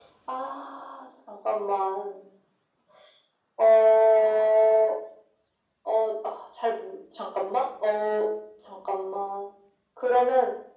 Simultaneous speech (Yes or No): No